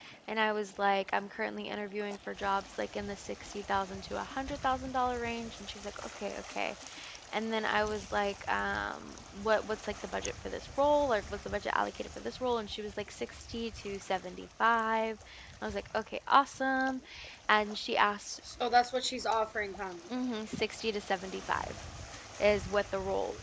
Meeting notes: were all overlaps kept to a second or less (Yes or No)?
Yes